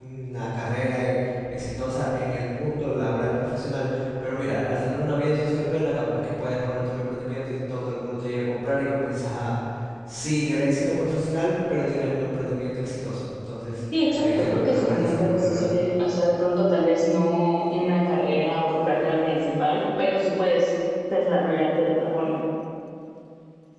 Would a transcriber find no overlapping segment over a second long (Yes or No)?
No